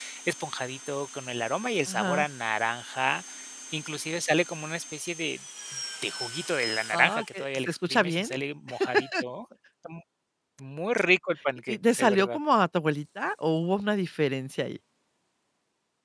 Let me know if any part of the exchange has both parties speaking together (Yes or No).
Yes